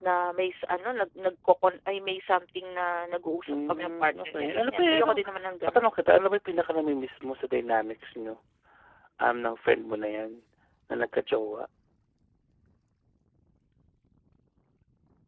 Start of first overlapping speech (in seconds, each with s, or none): 3.5 s